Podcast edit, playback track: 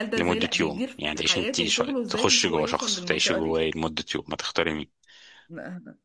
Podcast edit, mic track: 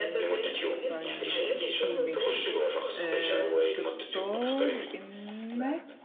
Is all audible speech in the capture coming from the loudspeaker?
No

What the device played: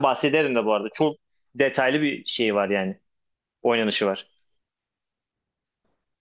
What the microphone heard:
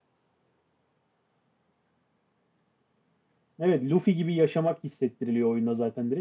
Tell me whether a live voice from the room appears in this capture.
Yes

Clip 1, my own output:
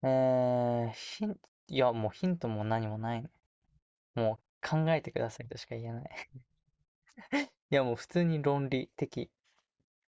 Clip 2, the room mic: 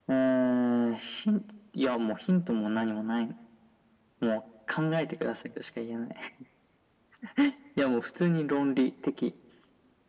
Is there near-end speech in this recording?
No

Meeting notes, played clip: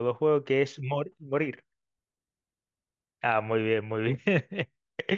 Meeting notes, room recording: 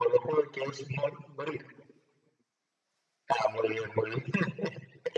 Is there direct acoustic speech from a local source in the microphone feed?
No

